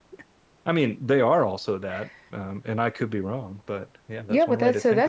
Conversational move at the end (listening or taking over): taking over